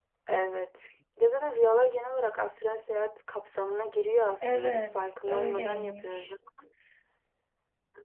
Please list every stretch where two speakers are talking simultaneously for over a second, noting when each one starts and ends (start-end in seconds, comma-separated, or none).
4.4-6.3